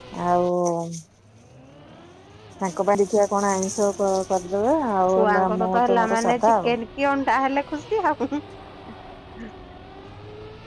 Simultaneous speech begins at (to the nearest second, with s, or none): 5 s